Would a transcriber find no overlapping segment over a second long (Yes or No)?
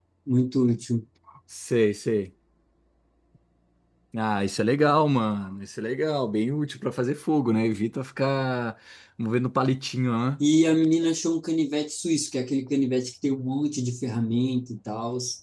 Yes